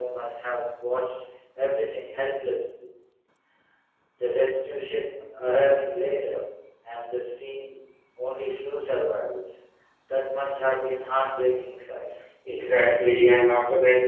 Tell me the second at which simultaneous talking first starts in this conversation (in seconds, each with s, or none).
none